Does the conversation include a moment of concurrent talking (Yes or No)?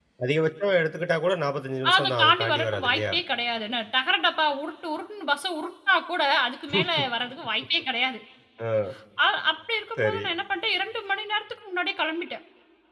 Yes